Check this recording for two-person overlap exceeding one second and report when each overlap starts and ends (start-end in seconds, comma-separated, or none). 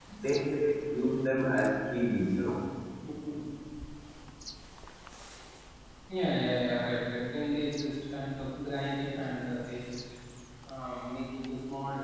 none